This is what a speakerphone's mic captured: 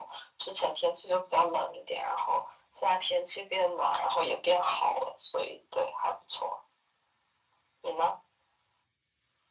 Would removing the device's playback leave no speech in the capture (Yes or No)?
Yes